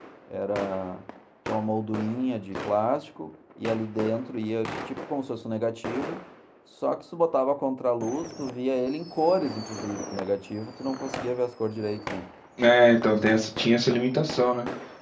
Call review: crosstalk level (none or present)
none